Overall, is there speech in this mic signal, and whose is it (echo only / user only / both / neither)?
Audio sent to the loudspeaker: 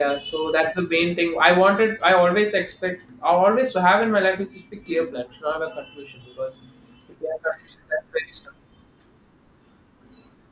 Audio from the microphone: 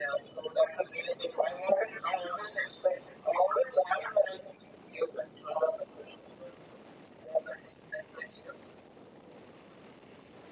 echo only